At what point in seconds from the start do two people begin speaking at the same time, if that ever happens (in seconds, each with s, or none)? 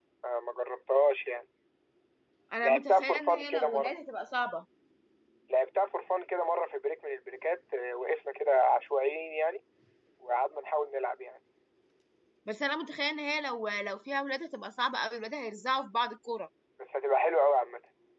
2.6 s